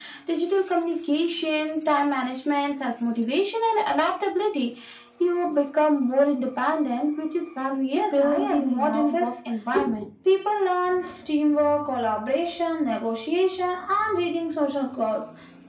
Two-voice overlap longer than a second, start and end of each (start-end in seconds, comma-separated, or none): 8.0-9.3